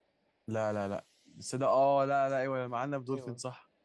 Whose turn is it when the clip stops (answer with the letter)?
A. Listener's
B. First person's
A